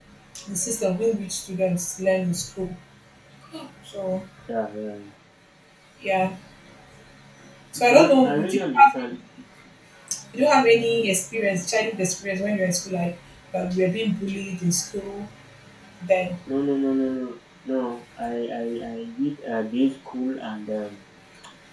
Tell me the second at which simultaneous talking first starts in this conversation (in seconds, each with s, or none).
7.9 s